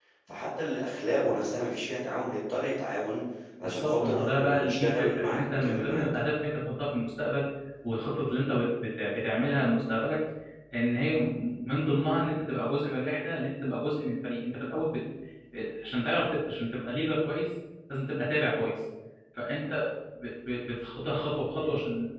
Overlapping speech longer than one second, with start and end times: 3.6-6.0

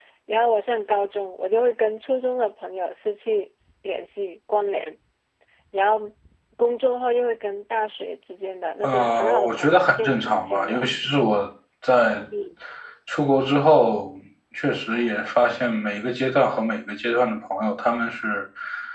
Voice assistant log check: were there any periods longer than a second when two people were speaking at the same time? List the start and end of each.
8.8-10.8

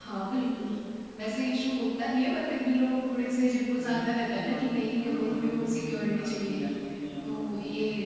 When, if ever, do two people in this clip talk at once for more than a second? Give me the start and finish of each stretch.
3.8-6.6

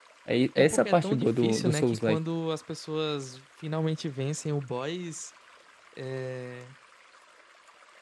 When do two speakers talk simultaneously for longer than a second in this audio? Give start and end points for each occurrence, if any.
0.6-2.2

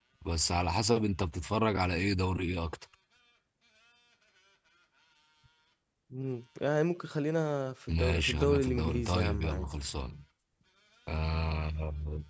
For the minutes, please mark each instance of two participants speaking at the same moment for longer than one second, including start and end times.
7.9-9.7

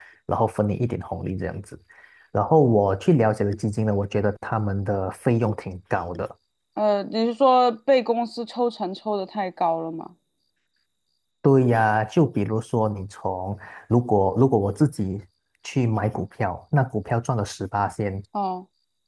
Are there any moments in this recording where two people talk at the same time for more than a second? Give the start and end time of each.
none

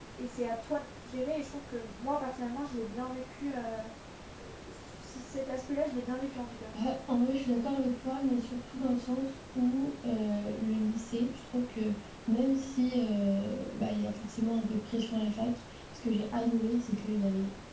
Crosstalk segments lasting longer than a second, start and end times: none

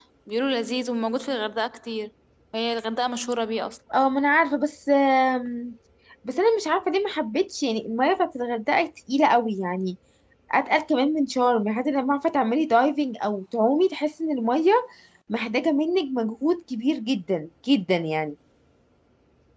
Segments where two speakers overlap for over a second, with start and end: none

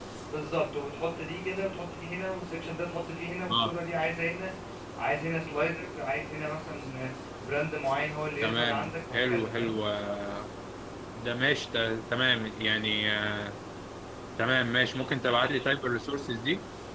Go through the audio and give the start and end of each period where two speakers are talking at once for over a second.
8.4-9.8

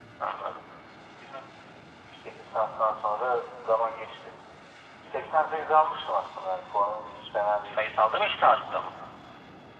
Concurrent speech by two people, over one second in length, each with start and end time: none

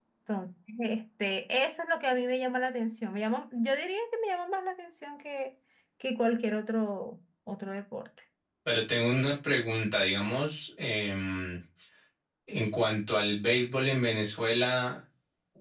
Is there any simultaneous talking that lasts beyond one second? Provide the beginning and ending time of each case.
none

